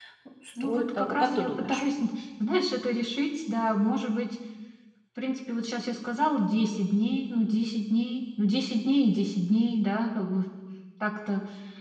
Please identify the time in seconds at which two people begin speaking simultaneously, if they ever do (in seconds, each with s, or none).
0.6 s